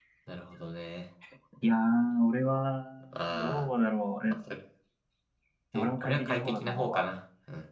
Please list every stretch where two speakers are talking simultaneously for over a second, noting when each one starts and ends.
5.7-7.0

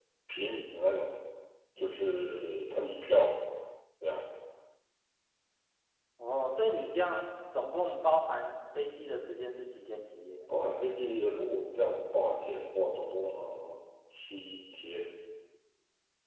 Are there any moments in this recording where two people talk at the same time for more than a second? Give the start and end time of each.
none

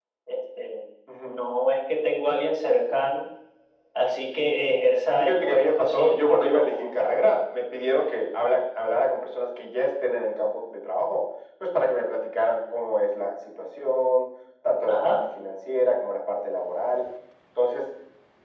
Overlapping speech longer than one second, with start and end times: 5.2-7.2

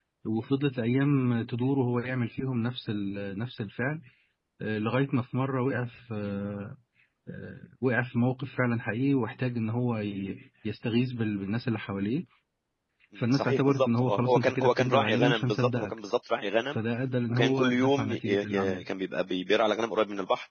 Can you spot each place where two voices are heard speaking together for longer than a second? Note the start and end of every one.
13.3-16.0, 17.3-18.8

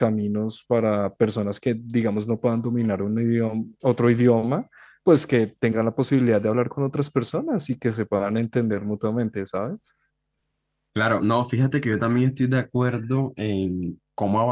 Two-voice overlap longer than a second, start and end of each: none

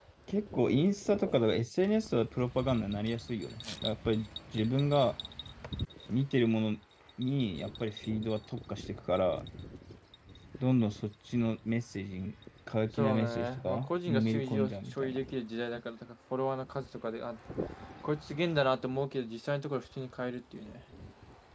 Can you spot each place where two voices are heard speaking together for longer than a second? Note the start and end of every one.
13.0-15.2

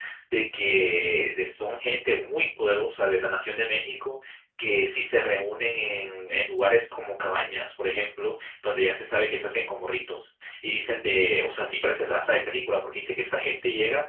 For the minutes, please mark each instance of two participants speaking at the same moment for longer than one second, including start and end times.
none

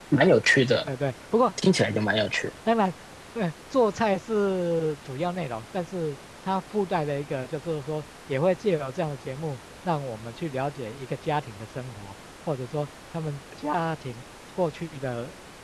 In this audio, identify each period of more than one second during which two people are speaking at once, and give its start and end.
none

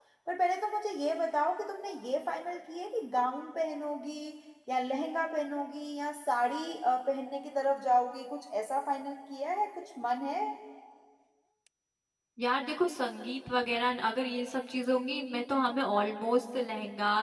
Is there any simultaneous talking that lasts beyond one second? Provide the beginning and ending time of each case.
none

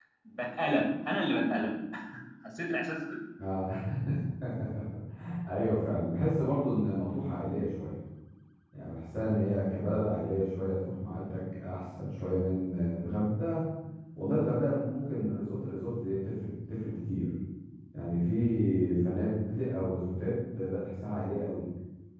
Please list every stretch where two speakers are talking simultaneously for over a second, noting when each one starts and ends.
none

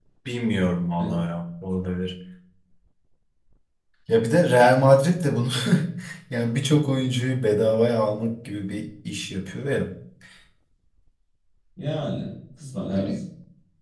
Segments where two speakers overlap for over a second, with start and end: none

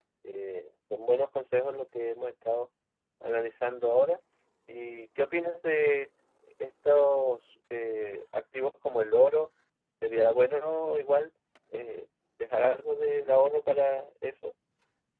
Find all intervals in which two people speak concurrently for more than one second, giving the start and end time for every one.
none

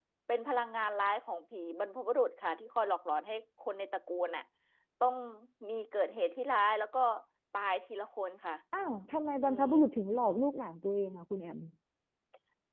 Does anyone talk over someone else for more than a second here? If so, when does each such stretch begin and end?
none

